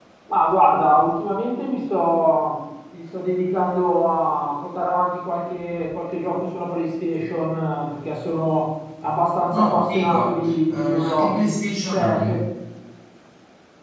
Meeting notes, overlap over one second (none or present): present